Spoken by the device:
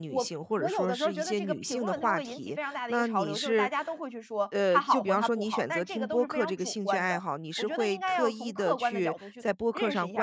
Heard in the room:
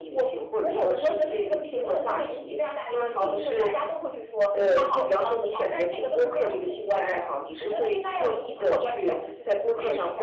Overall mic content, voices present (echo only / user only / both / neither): echo only